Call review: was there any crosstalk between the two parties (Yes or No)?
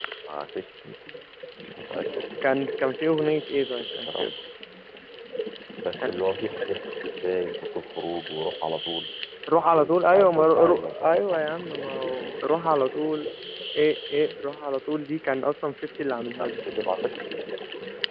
Yes